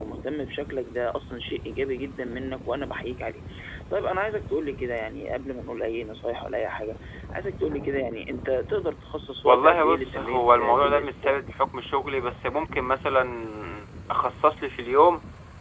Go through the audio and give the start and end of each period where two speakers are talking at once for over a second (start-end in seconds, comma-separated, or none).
9.4-11.3